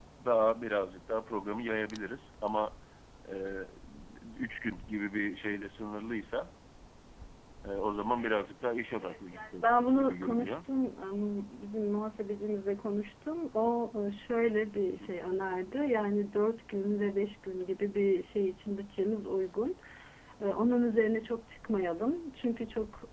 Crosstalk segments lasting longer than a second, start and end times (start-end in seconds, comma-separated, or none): 9.0-10.6